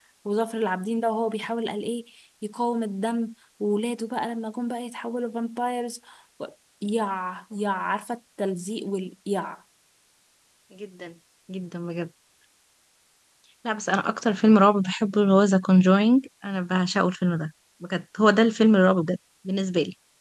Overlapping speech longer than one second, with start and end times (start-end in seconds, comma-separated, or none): none